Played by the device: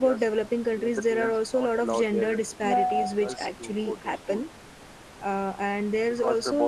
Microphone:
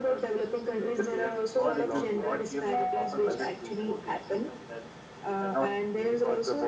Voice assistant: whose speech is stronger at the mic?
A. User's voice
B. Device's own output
B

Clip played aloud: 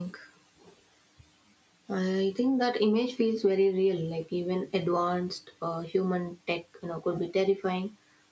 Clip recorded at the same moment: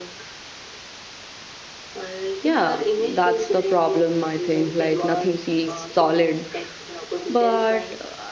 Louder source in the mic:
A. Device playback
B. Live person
B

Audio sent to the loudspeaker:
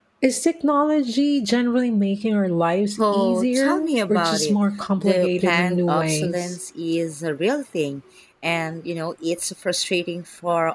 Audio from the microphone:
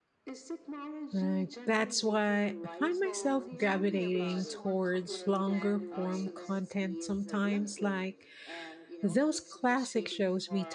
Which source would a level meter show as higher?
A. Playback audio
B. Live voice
B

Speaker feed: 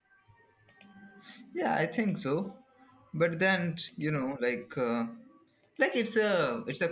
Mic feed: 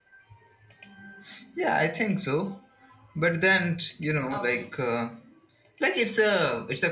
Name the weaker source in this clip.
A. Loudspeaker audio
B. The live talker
B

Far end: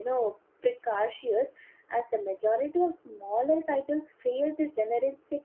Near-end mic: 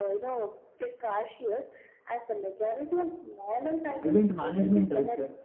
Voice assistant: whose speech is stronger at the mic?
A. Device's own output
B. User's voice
B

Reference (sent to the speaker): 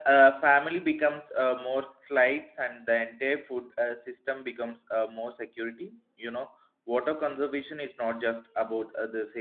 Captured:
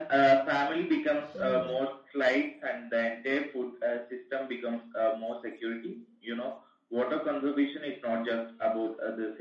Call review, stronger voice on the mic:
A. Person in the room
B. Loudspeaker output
B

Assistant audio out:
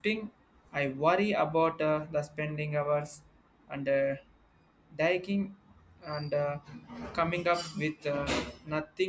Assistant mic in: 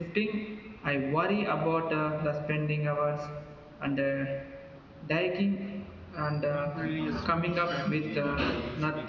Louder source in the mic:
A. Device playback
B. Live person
A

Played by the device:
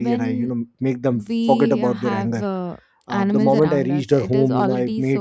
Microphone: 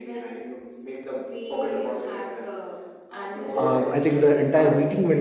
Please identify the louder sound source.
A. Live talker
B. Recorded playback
A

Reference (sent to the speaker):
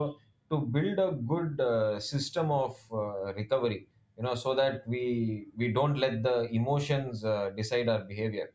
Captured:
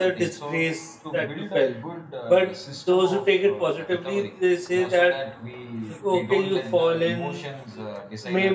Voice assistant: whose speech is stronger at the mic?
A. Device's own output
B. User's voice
B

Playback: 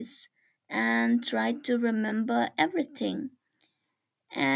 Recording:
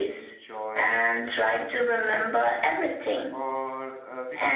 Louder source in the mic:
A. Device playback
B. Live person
A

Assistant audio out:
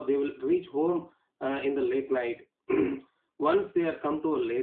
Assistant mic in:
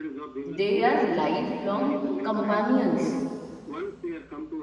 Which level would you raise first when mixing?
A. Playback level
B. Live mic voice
A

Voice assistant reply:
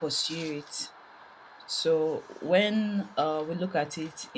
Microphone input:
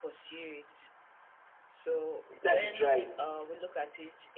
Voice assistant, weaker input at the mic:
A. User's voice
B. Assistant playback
B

